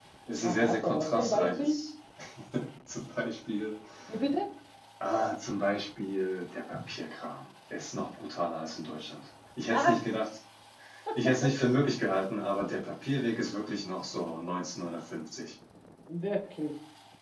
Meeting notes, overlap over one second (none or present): present